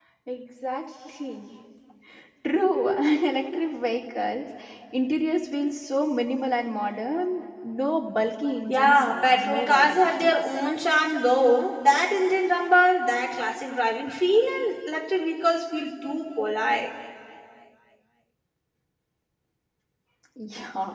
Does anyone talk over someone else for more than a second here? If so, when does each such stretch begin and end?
8.7-10.4

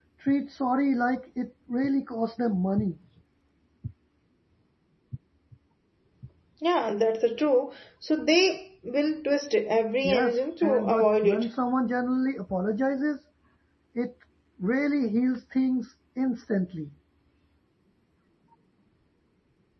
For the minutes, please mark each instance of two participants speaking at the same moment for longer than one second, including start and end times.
10.0-11.5

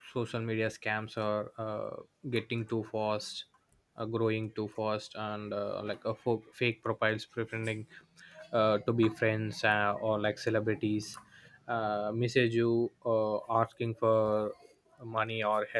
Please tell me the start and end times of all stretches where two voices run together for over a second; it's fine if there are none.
none

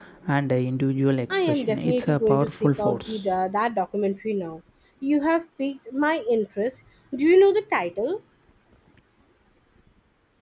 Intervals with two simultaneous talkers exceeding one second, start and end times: 1.3-3.2

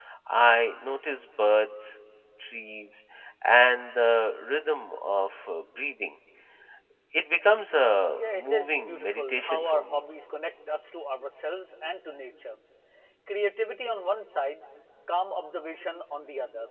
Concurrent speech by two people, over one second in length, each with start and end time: 8.1-10.0

